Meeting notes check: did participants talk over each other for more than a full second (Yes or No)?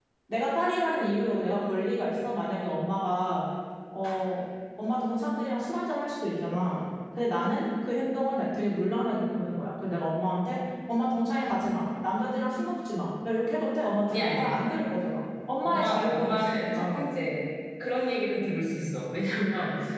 Yes